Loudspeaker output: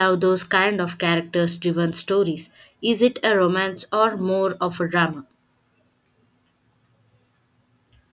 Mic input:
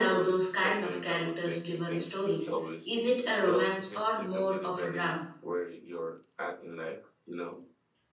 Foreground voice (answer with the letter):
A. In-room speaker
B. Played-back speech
B